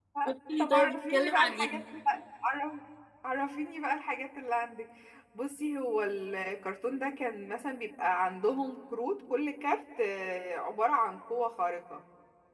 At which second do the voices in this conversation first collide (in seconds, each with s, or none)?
0.6 s